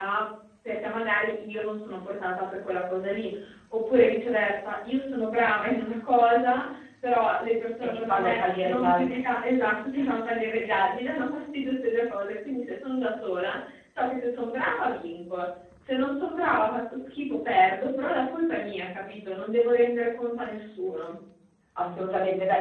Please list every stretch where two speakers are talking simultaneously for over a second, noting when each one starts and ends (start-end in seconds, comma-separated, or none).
7.8-9.2